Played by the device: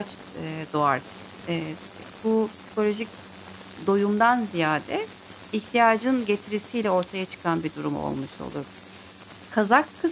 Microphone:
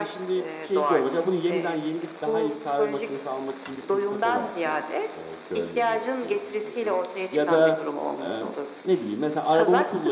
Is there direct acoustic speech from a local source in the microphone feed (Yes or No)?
Yes